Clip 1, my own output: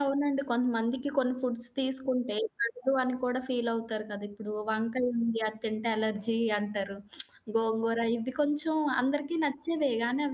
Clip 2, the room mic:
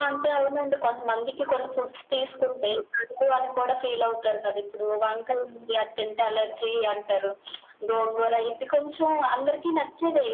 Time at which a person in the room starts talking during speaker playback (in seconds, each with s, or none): none